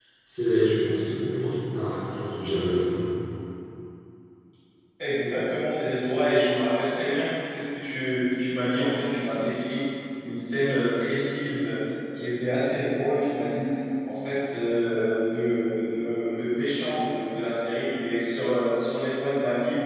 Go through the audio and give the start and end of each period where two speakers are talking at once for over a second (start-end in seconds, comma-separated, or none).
none